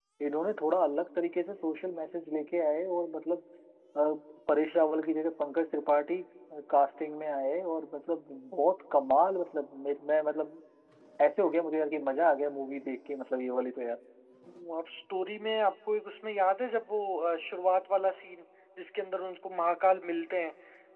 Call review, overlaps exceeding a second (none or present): none